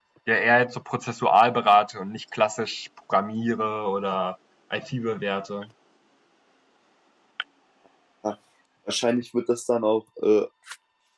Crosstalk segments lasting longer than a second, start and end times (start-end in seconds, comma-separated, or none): none